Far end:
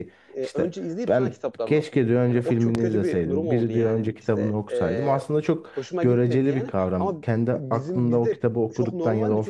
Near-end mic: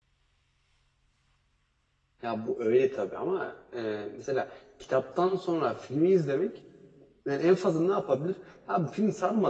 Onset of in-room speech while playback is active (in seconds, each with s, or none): 2.2 s